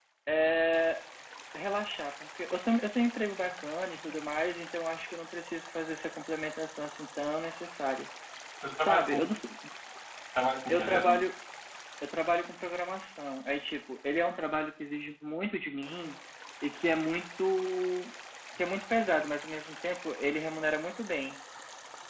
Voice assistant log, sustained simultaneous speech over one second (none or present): none